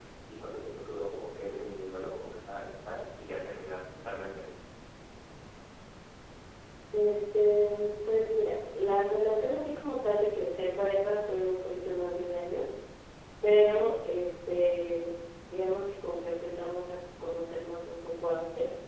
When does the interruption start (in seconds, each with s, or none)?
none